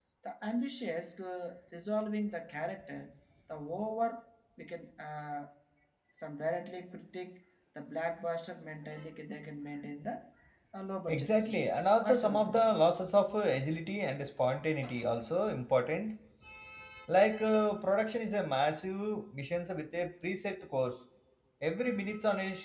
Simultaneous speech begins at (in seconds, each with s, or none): 11.1 s